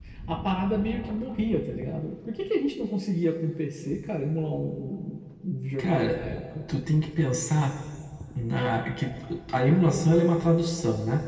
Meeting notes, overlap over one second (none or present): none